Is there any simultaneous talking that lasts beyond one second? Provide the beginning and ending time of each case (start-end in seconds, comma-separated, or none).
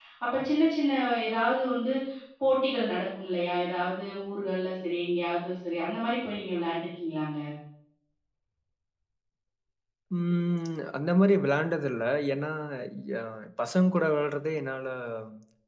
none